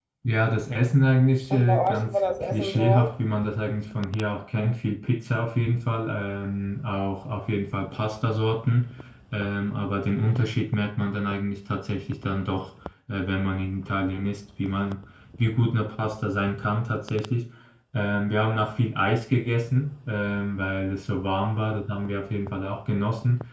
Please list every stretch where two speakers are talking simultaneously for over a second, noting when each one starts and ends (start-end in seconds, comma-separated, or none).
1.5-3.1